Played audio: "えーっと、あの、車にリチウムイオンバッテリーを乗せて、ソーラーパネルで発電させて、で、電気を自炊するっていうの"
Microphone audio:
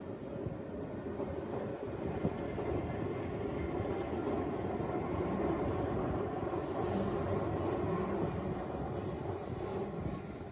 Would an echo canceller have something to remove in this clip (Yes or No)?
No